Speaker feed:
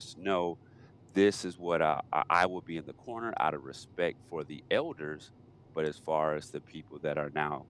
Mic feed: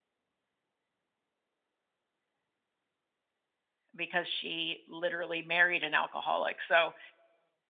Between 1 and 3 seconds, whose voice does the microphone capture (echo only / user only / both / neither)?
neither